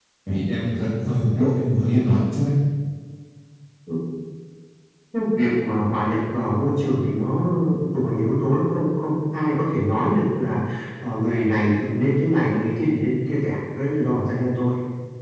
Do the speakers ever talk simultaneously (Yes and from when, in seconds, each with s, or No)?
No